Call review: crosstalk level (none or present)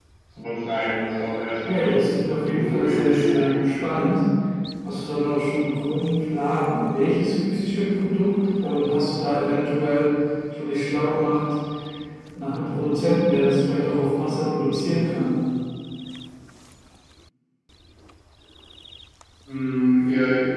present